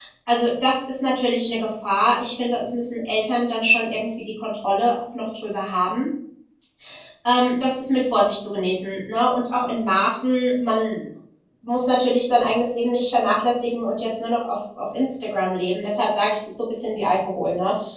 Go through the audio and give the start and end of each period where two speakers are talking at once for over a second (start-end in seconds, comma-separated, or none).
none